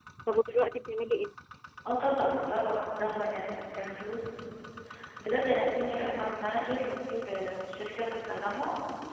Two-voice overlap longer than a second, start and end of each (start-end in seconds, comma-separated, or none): none